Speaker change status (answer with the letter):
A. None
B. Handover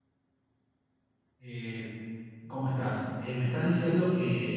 A